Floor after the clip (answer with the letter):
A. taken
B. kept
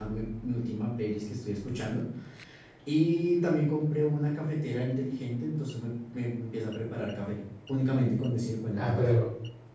A